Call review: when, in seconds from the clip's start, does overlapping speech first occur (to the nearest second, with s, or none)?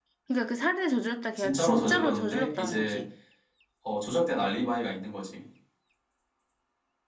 1 s